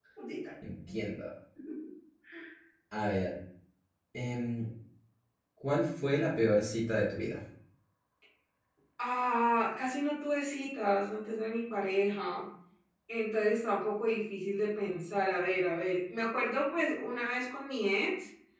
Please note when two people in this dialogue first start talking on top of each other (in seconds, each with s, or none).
none